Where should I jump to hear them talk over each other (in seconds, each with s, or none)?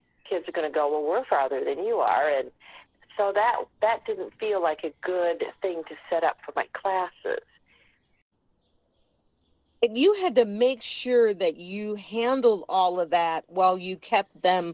none